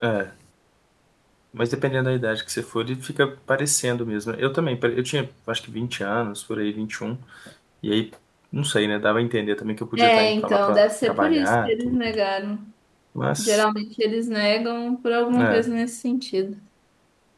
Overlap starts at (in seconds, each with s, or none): 10.0 s